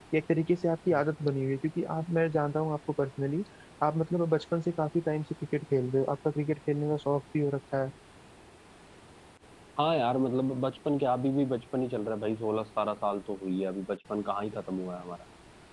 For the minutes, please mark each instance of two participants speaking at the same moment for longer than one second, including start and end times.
none

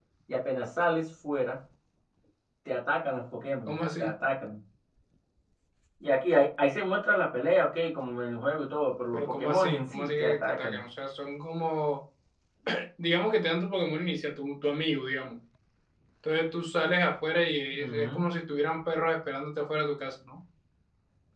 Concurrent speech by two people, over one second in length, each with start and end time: 9.1-10.8

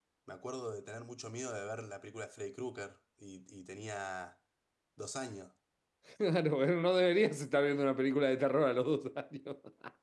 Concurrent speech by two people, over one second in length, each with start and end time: none

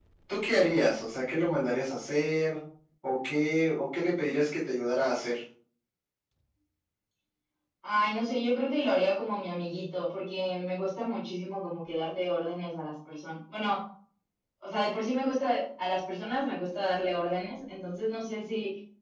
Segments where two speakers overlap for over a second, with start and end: none

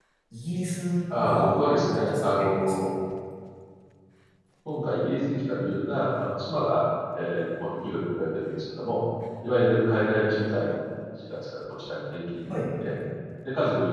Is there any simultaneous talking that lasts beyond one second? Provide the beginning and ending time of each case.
1.1-2.9

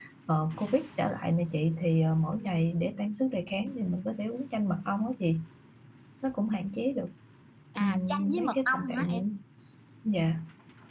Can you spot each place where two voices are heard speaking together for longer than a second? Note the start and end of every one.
7.8-9.2

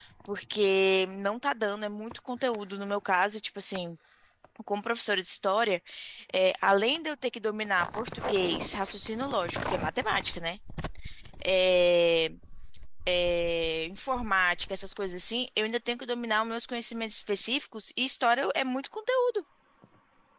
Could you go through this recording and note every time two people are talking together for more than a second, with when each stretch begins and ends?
none

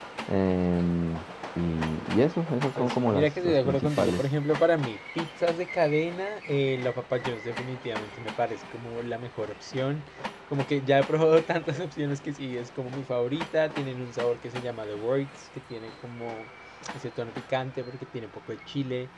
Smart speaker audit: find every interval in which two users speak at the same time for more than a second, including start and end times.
2.8-4.2

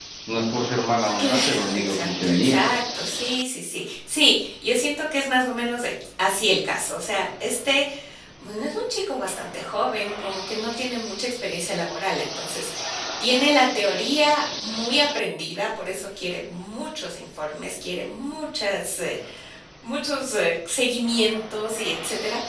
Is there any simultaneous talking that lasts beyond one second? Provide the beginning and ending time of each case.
1.2-2.6

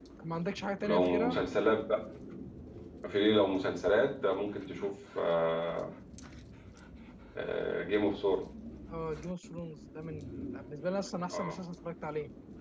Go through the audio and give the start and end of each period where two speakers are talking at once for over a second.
none

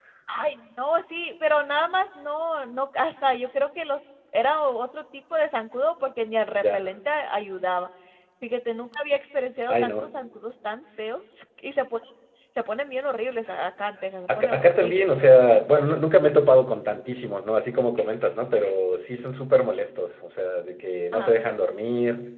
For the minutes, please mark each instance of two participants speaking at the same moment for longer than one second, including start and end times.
14.4-15.6

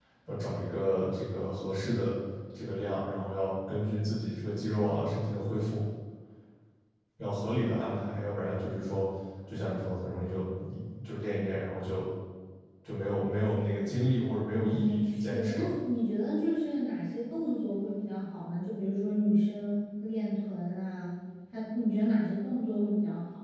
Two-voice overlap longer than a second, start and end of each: 14.5-15.7

